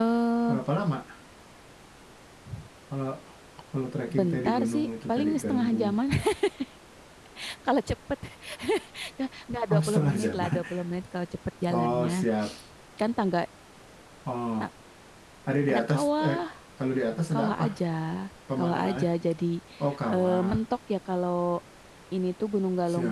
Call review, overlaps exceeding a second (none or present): present